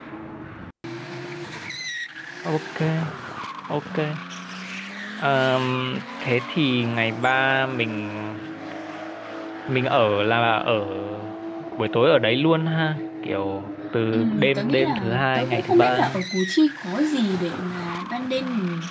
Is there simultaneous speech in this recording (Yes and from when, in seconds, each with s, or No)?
Yes, from 14.1 s